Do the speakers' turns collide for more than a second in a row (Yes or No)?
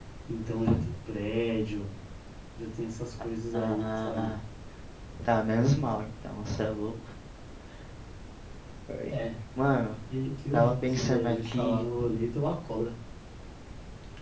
Yes